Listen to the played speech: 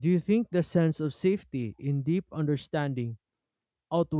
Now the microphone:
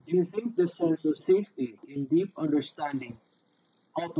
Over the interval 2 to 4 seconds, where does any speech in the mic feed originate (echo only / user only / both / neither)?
echo only